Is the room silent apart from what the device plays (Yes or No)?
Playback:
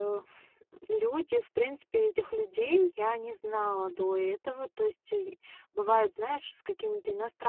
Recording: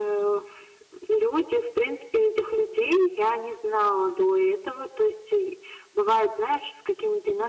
Yes